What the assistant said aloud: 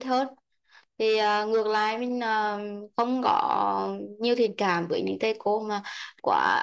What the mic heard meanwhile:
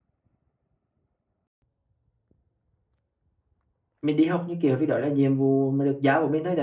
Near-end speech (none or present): present